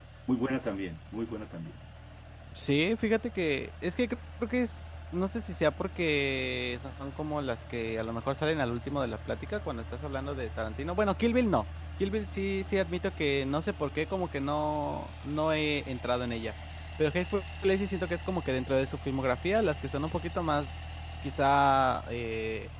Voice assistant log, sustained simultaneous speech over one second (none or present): none